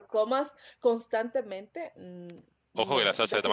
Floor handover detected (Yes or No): Yes